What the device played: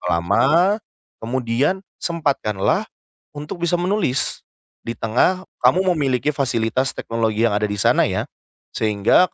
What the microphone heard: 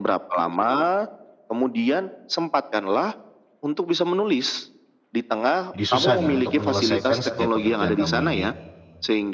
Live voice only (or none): jadi susah nih untuk menyelesaikan setiap pekerjaan kamu ini.